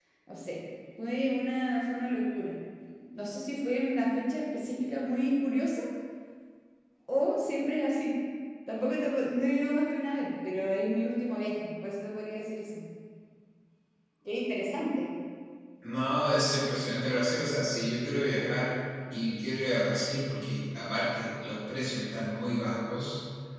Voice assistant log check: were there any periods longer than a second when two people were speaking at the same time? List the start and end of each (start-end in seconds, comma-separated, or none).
none